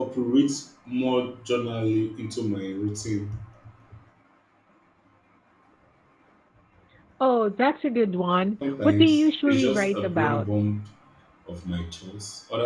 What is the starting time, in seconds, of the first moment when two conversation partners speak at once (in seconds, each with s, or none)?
8.8 s